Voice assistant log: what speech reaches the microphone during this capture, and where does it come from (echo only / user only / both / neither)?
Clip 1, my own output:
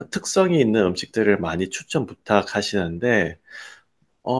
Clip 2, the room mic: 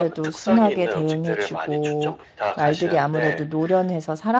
both